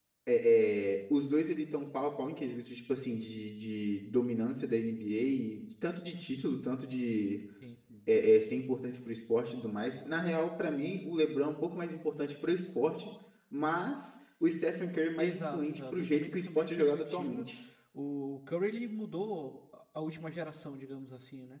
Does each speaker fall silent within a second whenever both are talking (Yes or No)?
No